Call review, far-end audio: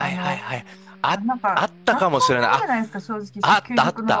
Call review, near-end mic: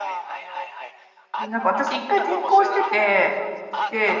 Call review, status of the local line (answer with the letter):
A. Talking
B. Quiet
A